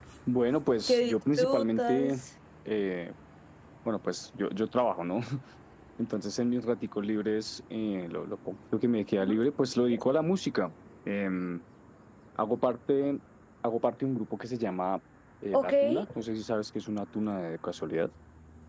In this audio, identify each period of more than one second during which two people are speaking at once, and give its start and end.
0.9-2.2

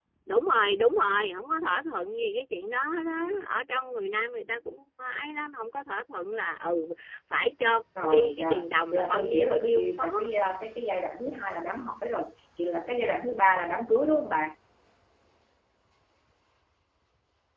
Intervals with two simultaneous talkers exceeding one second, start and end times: 8.0-10.1

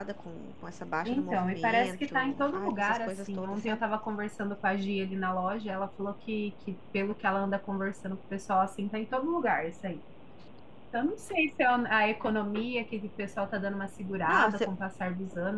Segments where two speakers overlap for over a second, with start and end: 1.1-3.8

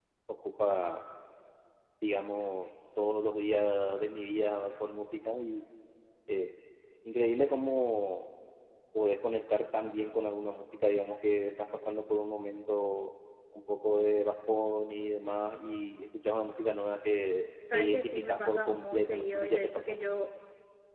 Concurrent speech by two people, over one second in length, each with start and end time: 17.7-19.9

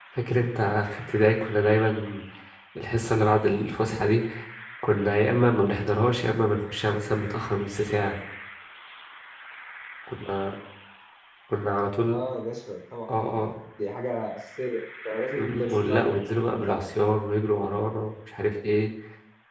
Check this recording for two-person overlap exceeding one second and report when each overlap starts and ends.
15.3-16.8

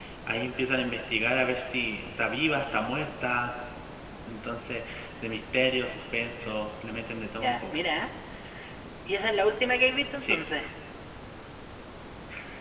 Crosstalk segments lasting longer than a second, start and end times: none

